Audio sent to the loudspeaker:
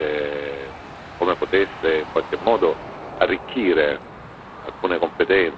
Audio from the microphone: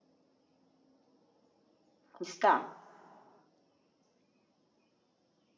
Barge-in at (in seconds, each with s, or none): 2.2 s